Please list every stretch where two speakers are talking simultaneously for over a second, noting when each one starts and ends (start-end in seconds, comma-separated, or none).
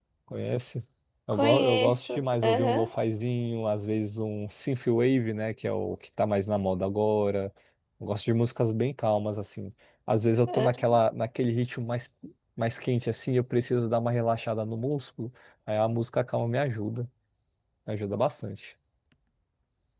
1.3-2.9